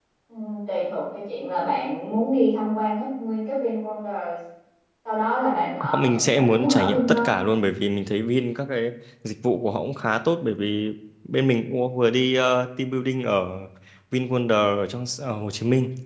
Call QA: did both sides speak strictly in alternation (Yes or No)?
No